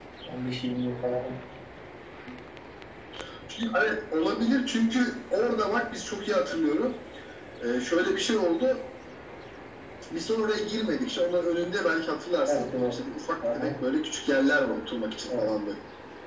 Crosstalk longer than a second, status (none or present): none